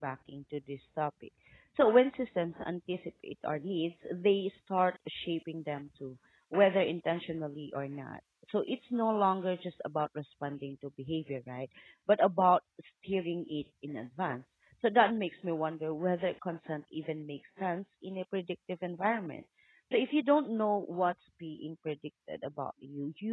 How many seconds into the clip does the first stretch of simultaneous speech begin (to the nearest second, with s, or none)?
none